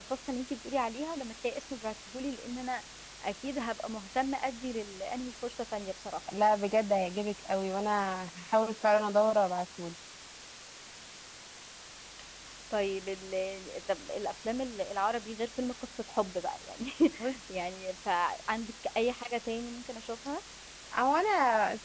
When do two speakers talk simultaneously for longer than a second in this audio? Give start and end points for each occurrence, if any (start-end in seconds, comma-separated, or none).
none